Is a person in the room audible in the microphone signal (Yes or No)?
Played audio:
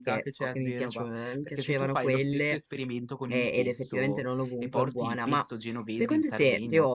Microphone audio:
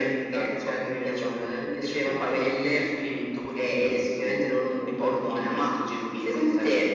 No